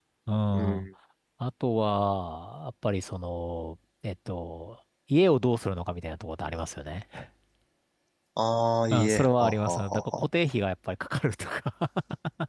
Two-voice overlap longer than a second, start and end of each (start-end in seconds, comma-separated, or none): 8.9-10.2